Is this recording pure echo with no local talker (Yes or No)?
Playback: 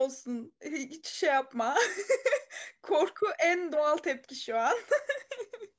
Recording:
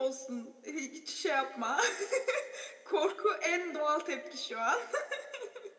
Yes